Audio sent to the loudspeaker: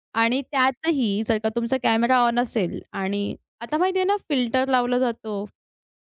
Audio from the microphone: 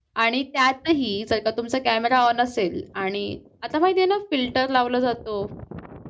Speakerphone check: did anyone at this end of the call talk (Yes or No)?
No